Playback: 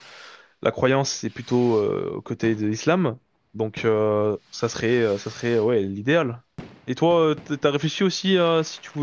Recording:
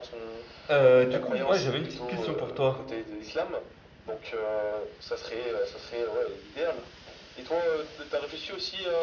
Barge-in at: 0.7 s

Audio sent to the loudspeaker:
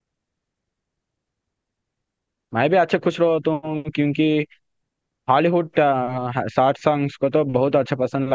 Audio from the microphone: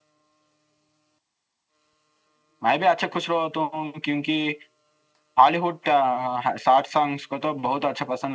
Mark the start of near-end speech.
none

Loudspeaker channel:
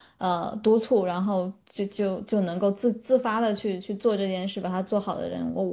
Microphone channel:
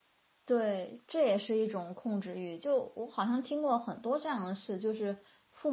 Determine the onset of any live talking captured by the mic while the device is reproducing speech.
0.4 s

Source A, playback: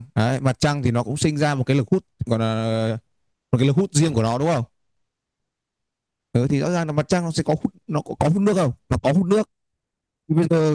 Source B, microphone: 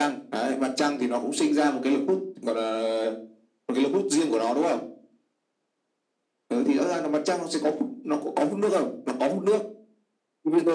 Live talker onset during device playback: none

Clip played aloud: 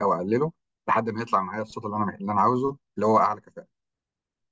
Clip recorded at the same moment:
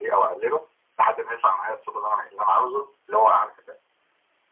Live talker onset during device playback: none

